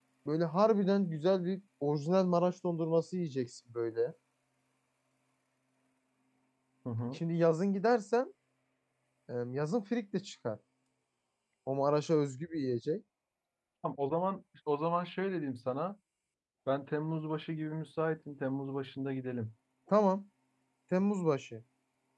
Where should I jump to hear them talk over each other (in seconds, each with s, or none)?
none